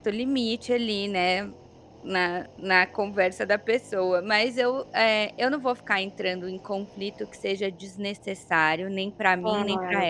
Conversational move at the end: taking over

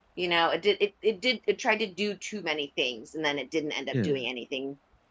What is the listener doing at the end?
listening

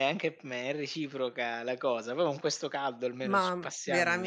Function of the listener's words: taking over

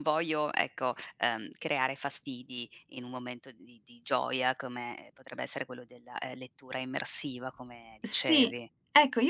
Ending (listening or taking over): taking over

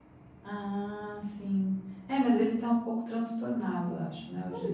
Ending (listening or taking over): taking over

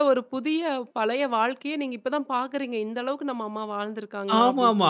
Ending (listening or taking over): taking over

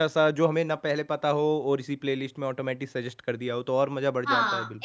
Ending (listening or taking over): taking over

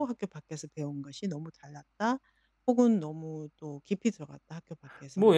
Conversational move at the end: taking over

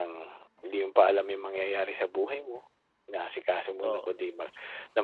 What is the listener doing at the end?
listening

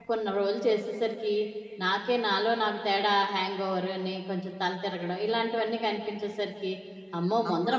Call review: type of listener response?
listening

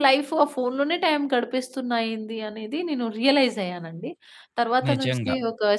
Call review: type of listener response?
listening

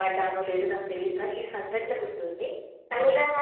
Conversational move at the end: taking over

